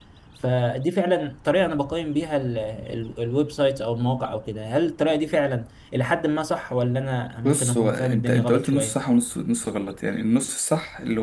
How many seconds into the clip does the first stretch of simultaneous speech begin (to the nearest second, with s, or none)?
7 s